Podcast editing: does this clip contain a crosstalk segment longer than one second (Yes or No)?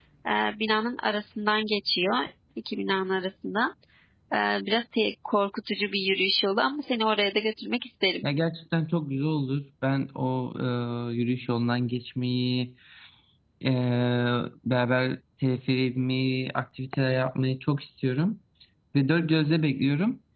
No